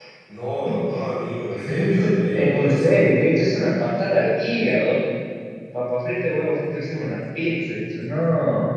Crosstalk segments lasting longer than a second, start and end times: 1.8-3.1

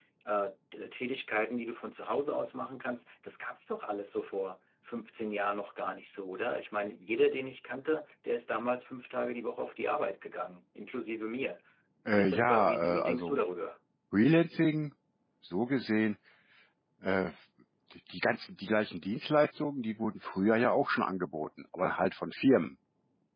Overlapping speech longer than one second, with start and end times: 12.2-13.4

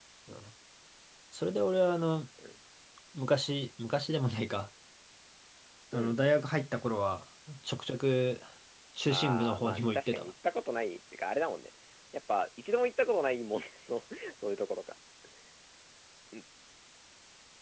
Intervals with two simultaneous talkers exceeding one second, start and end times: 9.1-10.3

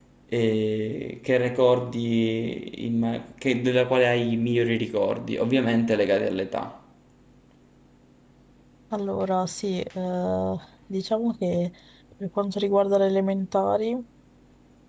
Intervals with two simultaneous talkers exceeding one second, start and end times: none

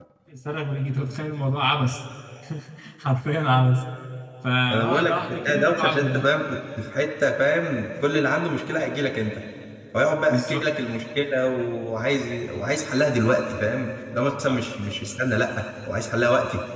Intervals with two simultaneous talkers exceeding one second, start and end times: 4.7-6.3

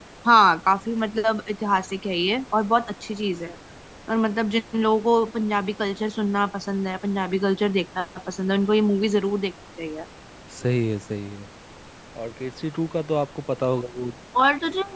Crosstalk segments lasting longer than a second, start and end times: none

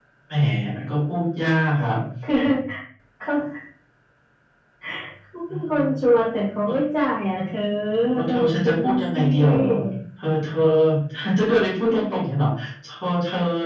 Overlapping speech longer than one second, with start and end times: 8.2-9.8

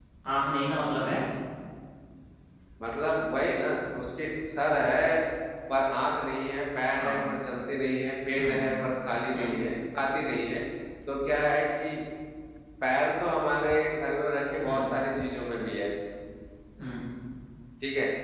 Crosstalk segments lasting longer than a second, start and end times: none

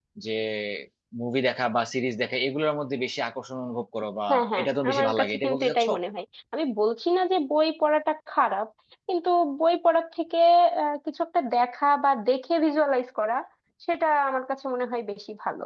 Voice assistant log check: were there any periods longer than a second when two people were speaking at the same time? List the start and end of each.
4.6-5.9

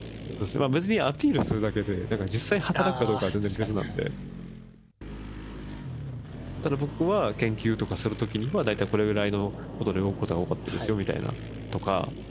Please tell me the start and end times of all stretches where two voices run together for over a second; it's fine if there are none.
2.7-4.1

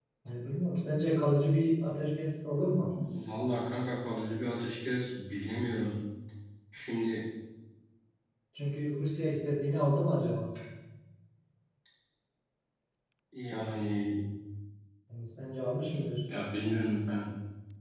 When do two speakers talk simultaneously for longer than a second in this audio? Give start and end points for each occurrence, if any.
none

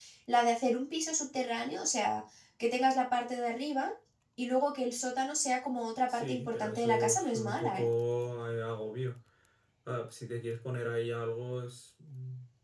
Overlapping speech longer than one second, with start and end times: 6.1-7.9

